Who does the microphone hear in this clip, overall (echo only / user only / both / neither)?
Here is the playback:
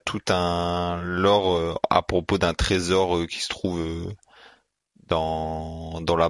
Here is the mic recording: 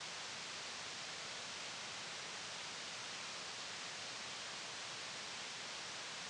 neither